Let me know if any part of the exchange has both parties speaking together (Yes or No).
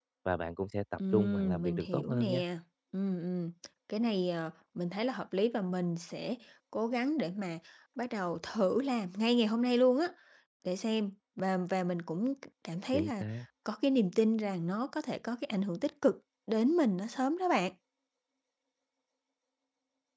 Yes